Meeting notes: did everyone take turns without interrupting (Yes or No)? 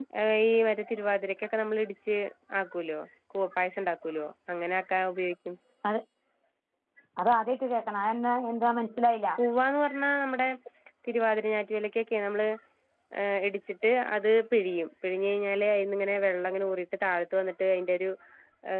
Yes